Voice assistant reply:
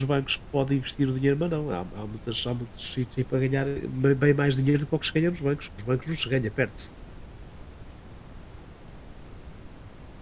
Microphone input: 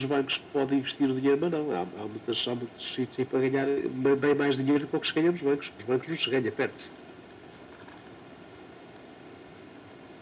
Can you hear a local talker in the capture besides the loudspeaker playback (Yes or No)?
No